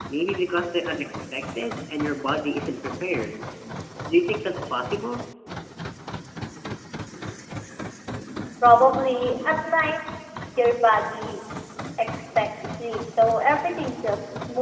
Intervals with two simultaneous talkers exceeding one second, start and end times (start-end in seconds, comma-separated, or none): none